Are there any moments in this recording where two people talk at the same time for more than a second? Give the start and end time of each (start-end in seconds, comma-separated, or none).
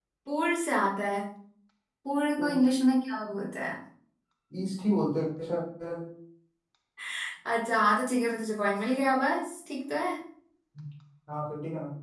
none